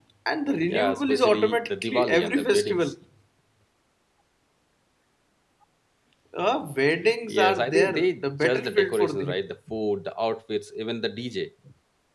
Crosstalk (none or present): present